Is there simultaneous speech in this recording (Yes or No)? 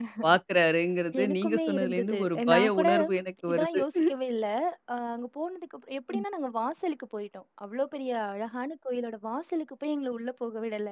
Yes